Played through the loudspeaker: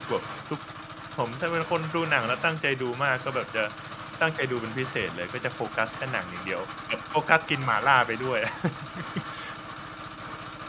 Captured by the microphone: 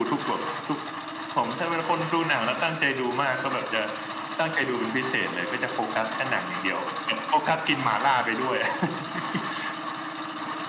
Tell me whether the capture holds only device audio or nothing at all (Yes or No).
Yes